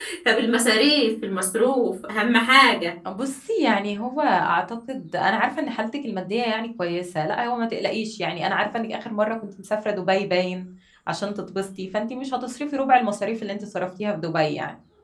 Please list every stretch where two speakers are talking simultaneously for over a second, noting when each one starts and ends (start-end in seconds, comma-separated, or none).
none